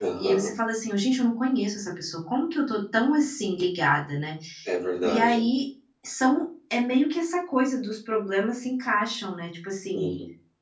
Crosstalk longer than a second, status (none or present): none